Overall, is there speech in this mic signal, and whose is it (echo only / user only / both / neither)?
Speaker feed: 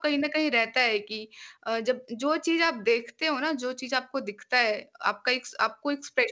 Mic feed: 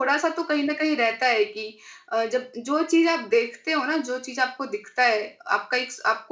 echo only